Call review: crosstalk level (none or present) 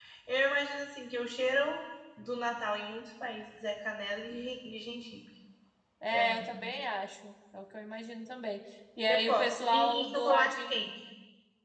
present